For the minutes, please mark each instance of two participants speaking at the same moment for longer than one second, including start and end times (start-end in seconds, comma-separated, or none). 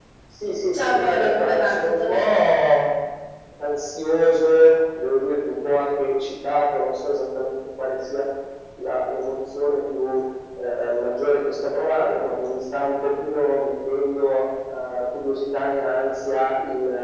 0.7-2.5